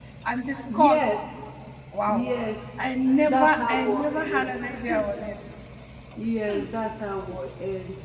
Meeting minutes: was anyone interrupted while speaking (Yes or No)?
Yes